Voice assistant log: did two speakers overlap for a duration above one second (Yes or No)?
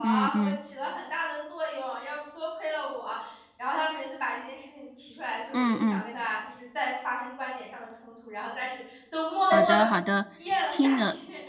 No